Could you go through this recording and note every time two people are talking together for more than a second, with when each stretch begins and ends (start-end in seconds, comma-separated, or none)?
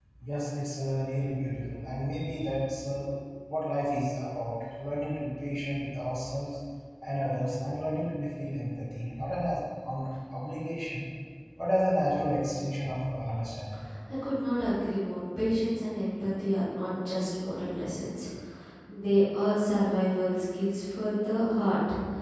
none